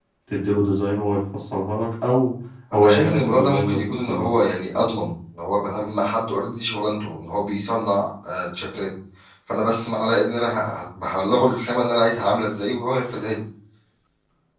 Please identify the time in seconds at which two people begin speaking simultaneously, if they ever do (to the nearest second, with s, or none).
3 s